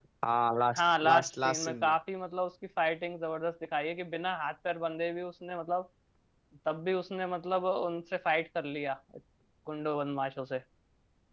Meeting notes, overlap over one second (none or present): present